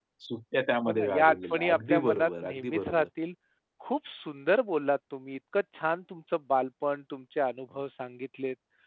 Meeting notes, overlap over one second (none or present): present